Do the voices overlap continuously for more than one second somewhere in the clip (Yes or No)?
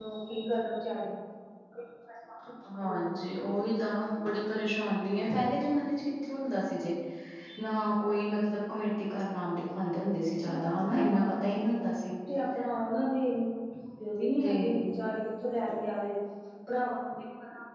No